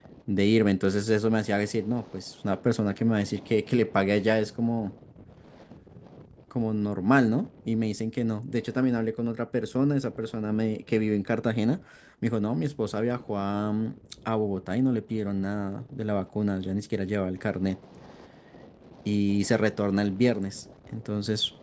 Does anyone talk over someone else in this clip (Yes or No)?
No